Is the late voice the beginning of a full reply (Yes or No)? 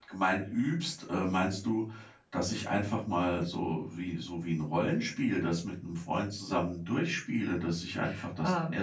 No